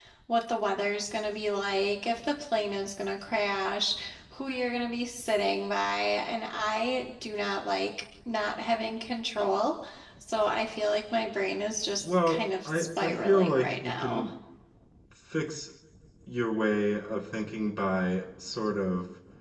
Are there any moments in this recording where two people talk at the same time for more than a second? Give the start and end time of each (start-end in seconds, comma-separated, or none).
12.0-14.3